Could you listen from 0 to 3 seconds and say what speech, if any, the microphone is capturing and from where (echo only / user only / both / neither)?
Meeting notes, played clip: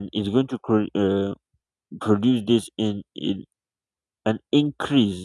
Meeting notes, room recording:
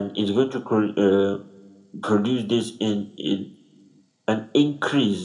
echo only